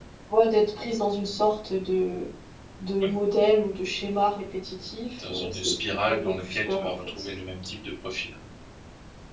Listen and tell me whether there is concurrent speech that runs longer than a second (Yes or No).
Yes